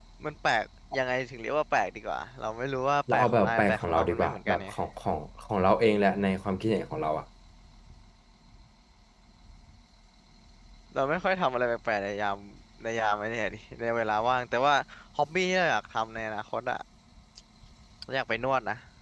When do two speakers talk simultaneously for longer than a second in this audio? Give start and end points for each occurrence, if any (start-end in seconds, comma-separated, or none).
3.1-4.7